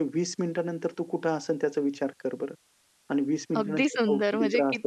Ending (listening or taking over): taking over